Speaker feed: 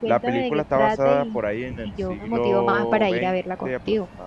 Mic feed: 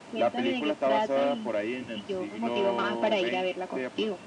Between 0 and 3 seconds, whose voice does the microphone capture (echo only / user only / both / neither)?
echo only